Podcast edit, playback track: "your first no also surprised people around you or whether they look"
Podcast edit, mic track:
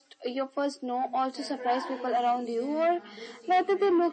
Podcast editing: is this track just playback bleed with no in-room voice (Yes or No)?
No